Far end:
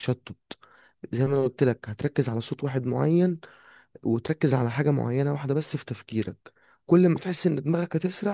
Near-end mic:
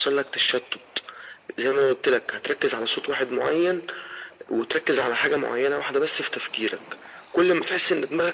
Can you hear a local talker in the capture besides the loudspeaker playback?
No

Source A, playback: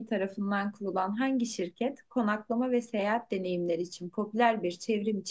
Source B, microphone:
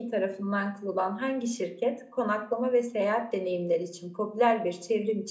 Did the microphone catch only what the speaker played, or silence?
Yes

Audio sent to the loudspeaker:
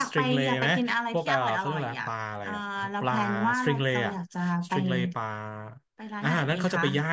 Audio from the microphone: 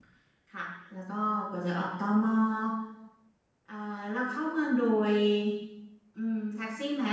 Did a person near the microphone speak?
Yes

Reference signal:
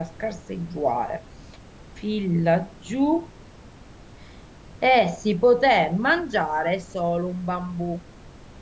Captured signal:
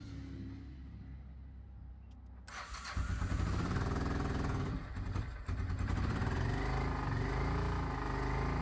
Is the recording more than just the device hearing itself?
No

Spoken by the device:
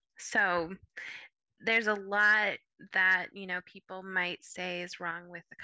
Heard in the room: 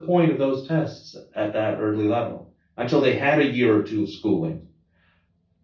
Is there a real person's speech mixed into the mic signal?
Yes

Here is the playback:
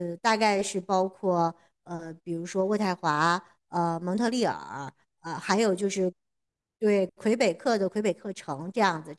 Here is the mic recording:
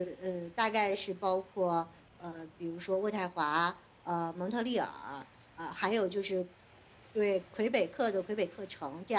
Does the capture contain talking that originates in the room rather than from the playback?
No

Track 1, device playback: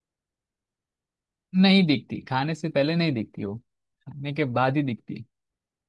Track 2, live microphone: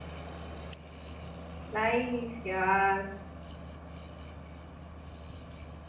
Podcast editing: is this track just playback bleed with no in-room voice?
No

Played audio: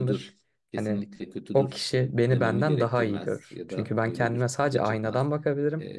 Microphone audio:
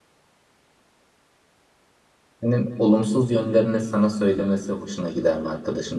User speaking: Yes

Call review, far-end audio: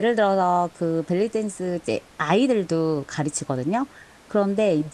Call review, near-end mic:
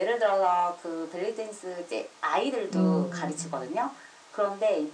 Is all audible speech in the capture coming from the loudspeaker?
No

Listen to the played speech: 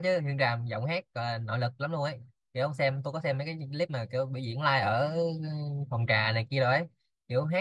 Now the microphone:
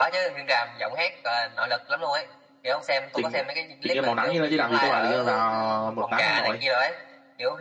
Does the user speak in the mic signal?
Yes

